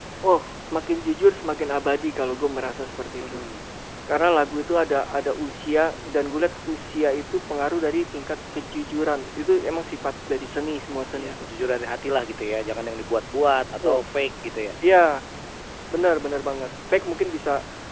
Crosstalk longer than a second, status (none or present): none